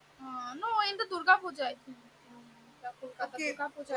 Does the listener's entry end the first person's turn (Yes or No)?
Yes